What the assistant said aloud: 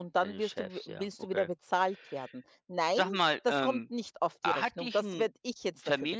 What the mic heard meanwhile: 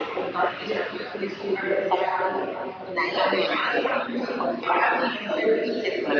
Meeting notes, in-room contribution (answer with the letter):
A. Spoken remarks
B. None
B